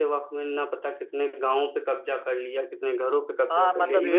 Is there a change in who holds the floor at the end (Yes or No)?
Yes